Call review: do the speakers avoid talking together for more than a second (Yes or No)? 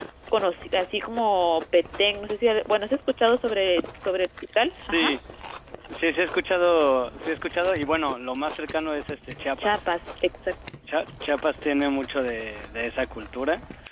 Yes